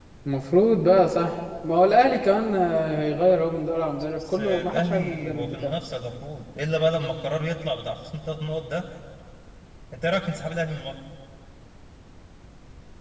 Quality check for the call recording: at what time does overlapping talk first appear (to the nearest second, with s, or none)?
4 s